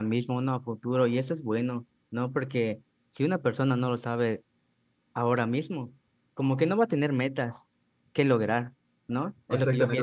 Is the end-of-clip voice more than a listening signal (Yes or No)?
Yes